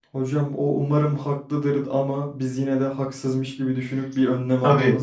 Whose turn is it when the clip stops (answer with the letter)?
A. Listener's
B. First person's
A